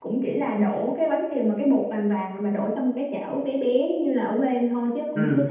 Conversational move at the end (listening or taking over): listening